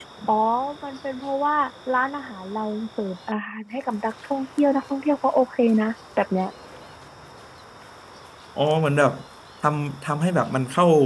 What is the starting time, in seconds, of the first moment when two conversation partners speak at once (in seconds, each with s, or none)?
none